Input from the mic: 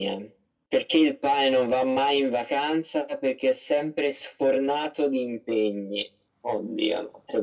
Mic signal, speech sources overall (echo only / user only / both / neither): echo only